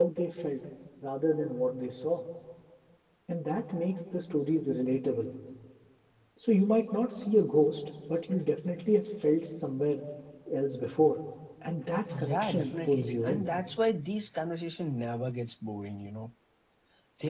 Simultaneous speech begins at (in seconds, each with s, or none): 12.2 s